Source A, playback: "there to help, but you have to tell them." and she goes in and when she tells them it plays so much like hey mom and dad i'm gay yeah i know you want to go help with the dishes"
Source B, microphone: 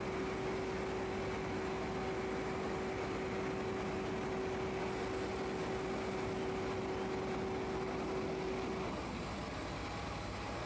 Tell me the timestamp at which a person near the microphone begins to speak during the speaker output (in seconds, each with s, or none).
none